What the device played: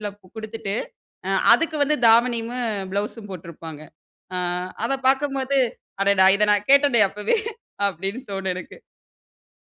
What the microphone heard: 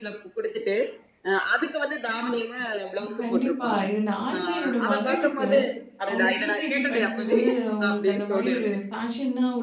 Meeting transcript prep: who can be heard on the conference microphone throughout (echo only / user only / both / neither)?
both